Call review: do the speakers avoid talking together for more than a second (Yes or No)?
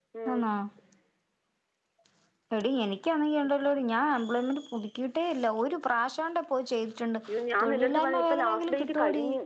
No